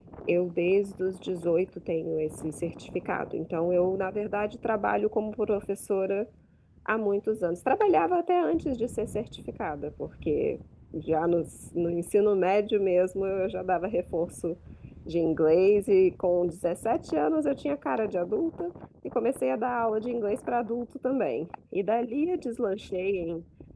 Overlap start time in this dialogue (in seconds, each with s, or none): none